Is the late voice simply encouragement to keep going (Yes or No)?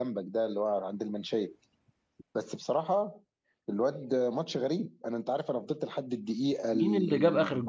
No